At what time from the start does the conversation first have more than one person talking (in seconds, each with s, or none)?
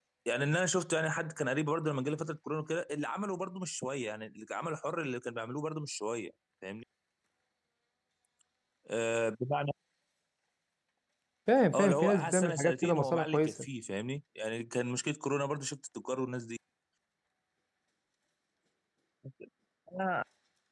11.7 s